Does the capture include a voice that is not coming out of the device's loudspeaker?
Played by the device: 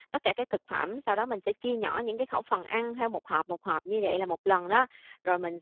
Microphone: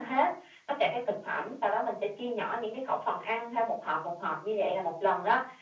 No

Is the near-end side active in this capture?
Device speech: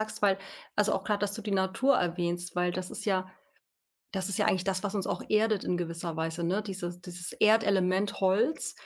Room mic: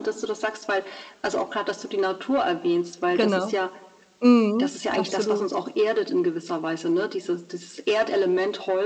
Yes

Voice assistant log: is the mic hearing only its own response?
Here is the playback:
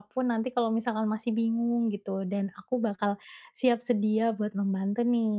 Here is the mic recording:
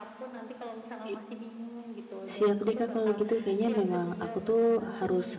No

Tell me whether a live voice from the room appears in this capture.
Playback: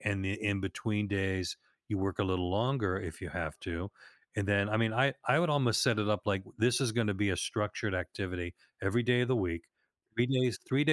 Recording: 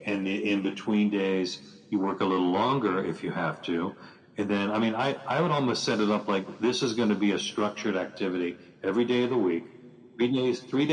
No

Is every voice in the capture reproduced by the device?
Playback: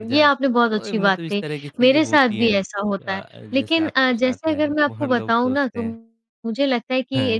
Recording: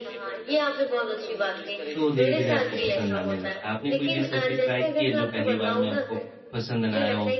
No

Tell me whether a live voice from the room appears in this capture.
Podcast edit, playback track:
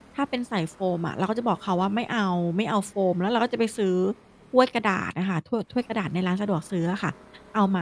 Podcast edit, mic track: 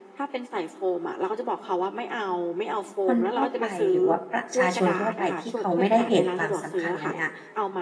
Yes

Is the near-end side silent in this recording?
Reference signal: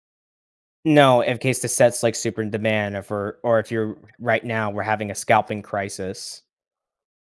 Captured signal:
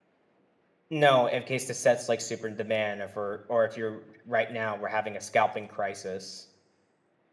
Yes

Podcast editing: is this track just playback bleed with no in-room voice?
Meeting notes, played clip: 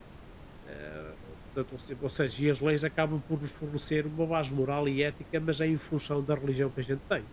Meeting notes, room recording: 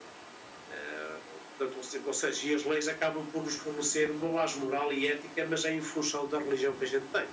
Yes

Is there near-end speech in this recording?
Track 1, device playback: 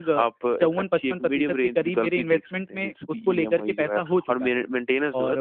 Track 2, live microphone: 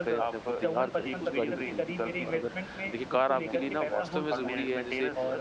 Yes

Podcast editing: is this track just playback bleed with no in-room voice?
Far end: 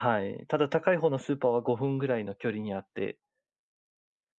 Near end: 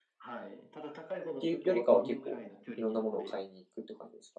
No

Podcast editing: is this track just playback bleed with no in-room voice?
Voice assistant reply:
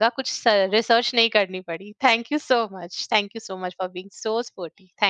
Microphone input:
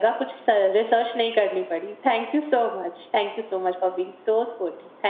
Yes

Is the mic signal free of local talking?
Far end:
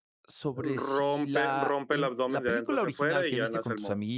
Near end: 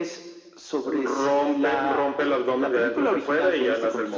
Yes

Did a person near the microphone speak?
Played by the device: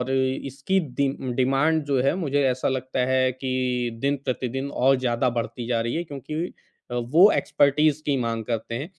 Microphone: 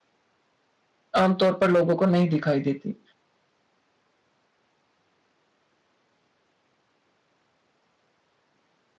Yes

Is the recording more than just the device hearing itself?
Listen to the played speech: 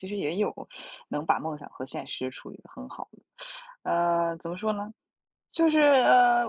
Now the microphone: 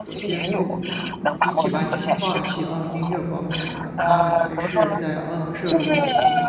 Yes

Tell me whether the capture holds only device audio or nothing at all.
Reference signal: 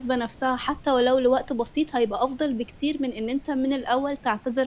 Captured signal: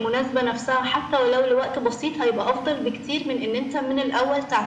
Yes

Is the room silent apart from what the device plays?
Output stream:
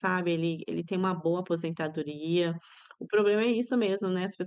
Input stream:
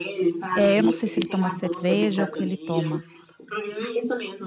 No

